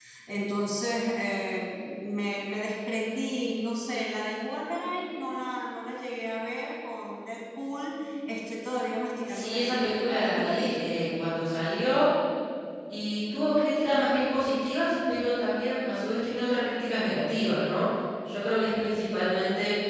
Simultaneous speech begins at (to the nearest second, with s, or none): 9 s